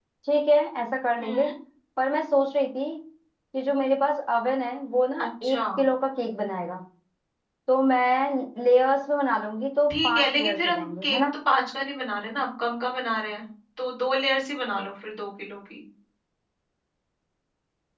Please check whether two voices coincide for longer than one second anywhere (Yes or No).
Yes